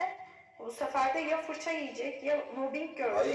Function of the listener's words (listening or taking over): taking over